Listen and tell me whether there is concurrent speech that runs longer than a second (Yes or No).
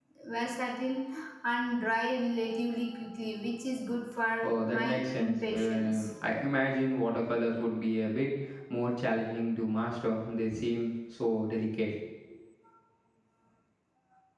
Yes